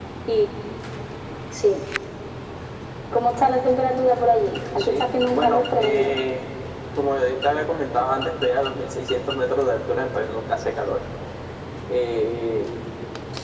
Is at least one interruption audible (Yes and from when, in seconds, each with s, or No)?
Yes, from 4.8 s